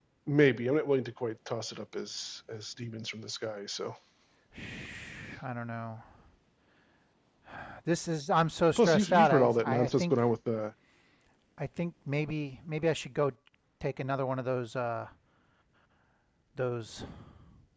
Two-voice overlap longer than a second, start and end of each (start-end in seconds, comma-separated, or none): 8.8-10.1